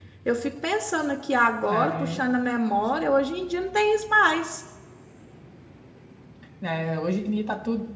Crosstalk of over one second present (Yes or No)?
No